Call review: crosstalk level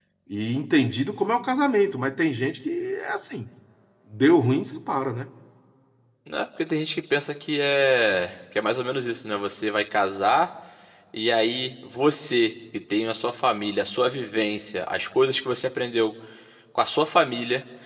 none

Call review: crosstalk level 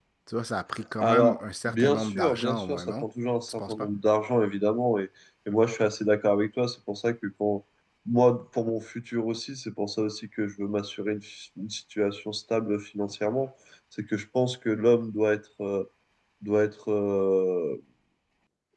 present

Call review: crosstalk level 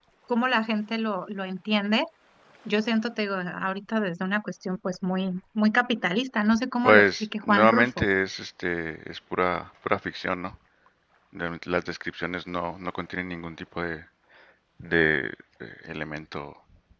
present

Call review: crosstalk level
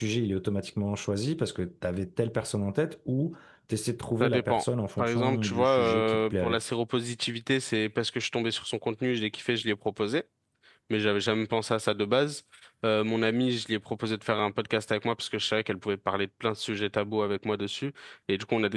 present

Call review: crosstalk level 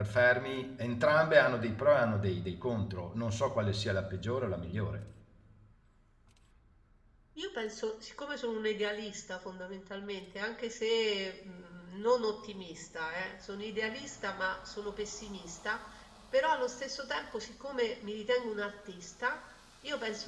none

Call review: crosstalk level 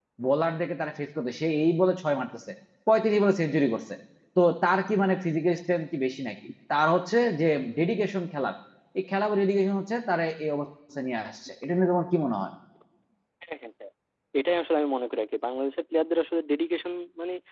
none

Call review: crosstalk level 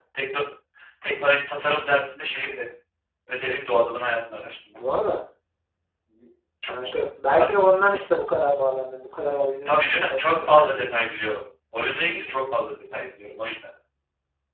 present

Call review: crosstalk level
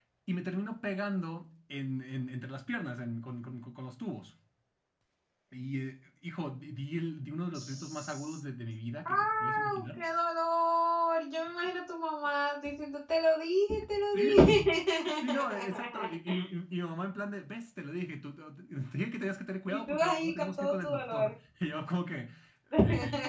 present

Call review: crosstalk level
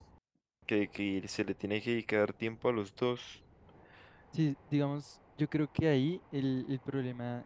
none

